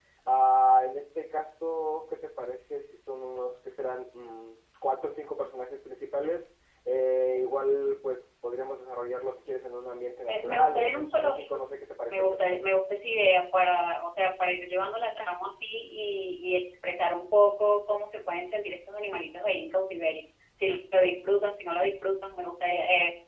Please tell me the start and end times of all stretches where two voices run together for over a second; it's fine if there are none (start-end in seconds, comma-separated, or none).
10.3-11.6